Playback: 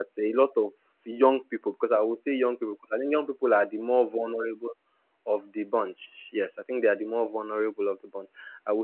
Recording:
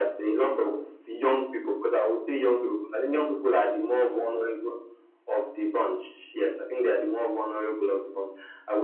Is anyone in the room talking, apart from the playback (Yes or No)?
No